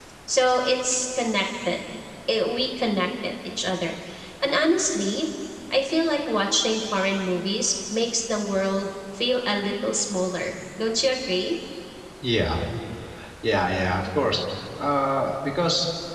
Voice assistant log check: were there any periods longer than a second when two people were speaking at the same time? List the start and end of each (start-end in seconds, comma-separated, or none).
none